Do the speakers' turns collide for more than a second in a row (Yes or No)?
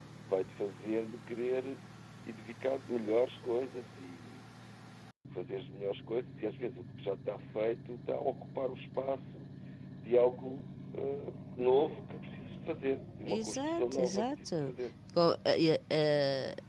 Yes